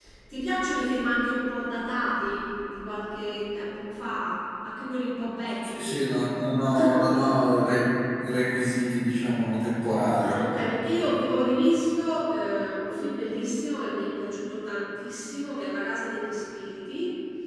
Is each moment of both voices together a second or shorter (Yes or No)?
Yes